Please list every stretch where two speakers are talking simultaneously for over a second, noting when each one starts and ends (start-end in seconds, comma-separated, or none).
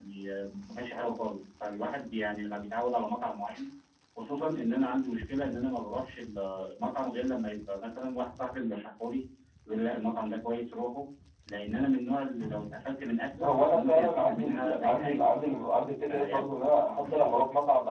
13.4-15.2